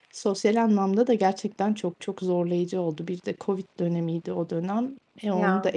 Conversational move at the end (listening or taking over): listening